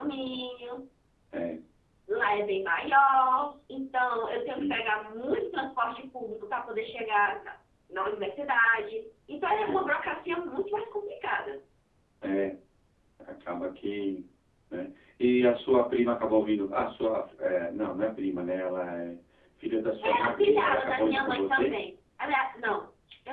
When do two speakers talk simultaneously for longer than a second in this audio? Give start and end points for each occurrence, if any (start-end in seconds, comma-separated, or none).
20.0-21.7